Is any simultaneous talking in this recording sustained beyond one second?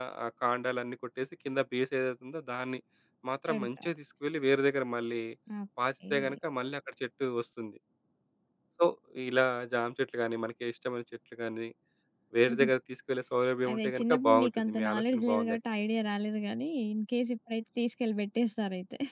Yes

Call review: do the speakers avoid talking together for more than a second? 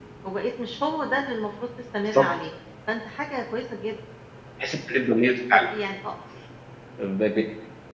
Yes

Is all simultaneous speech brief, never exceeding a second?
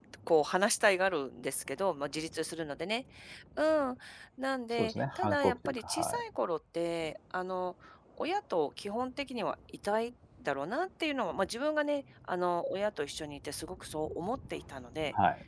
No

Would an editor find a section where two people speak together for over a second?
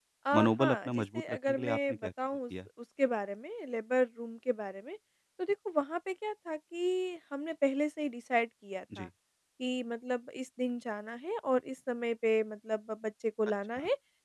Yes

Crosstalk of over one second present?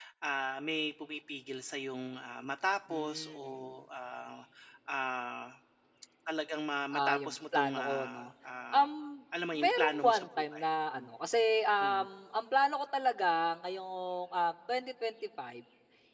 Yes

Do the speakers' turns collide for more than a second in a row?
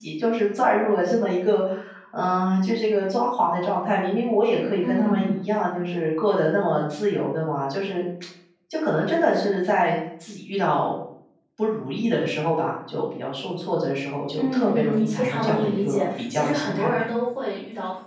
Yes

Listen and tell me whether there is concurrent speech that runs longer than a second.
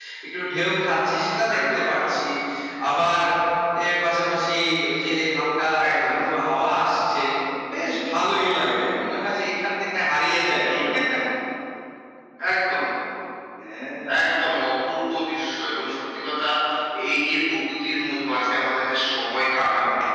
No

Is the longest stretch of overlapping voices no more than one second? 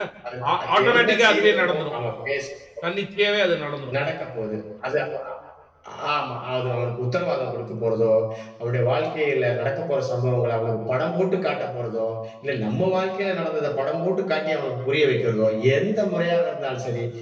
No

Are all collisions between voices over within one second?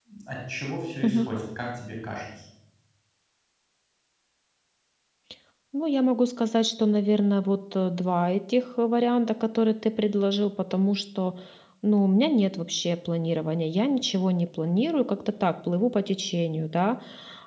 Yes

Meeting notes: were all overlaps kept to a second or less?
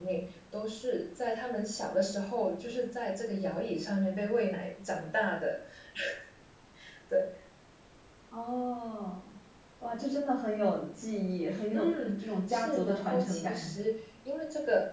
No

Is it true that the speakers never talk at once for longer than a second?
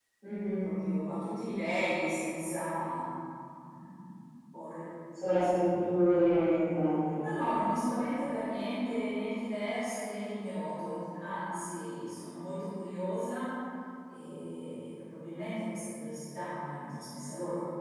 Yes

